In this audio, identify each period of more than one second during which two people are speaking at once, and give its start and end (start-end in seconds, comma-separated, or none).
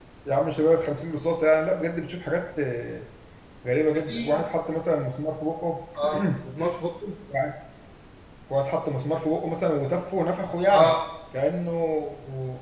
none